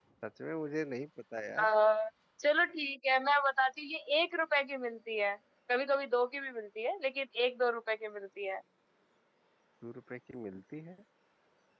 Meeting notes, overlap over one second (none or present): none